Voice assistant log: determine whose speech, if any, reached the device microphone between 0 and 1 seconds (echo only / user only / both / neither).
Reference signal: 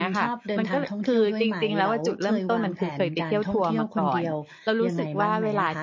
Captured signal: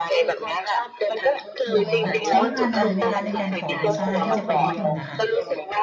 echo only